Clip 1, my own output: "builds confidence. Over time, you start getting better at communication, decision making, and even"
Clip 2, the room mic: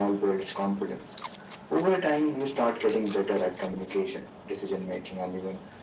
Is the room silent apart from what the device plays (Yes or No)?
Yes